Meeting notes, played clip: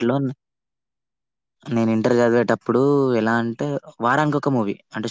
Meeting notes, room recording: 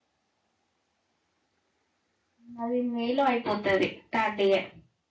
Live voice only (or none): నాది మే లో అయిపోతది థర్డ్ ఇయర్.